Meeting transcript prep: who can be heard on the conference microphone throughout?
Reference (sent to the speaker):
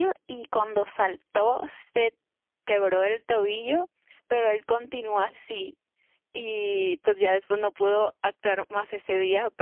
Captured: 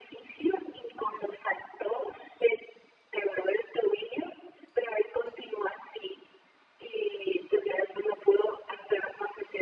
echo only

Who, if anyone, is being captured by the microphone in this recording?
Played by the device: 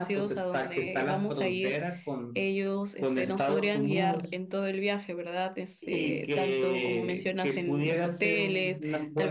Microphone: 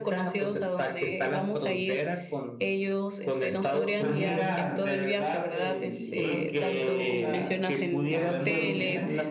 both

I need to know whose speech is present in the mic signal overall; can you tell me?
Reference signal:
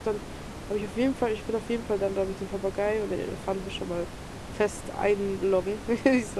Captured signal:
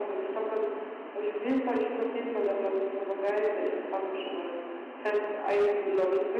echo only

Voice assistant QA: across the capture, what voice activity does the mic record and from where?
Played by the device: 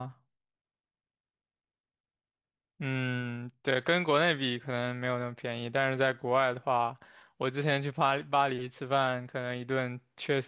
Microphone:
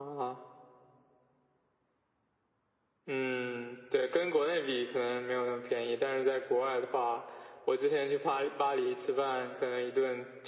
echo only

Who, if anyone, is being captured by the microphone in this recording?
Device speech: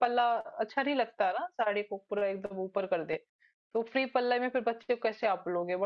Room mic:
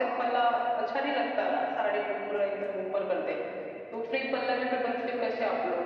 echo only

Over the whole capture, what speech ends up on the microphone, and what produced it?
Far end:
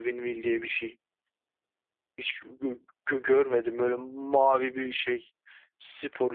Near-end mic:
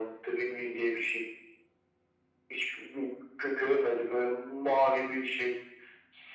echo only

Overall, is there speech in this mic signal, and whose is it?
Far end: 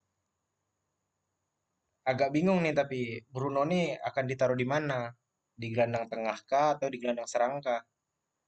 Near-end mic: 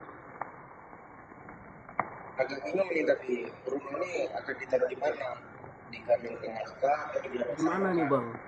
both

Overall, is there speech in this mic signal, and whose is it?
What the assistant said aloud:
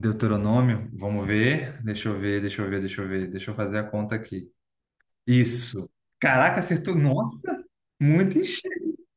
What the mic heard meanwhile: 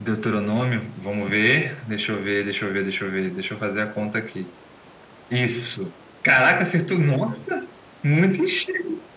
both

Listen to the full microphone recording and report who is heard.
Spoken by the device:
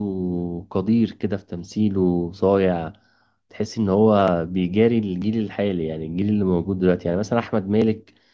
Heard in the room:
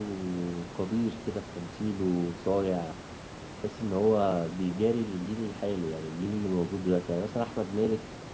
echo only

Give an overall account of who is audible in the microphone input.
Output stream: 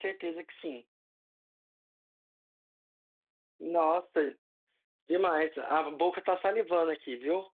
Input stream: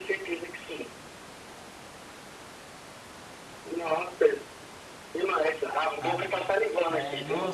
both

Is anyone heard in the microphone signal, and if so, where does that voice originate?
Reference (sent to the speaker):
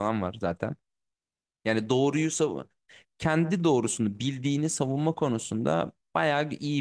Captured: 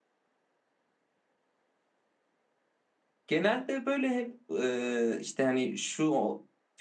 user only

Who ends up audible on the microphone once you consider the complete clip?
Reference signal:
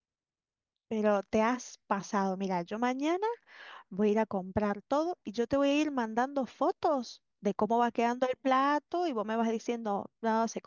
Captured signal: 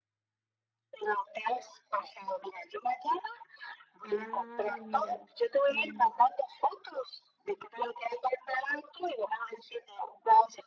both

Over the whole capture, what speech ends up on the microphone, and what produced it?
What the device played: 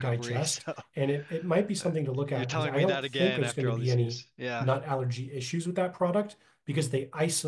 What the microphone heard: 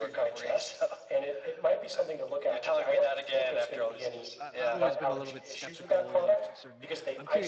both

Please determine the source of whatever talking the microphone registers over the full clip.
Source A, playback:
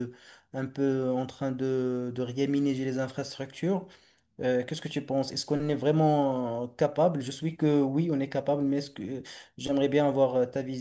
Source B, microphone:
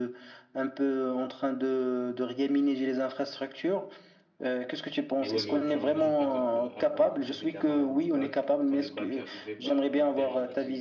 both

